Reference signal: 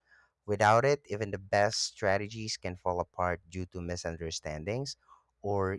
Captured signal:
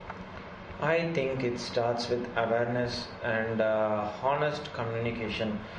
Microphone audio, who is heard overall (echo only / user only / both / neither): user only